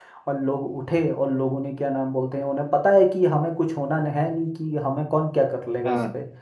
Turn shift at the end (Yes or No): No